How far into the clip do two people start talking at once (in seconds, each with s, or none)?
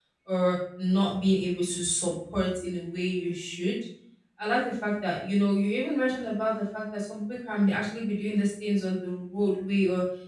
none